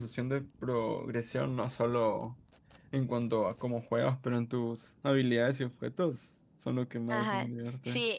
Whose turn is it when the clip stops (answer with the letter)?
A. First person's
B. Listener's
B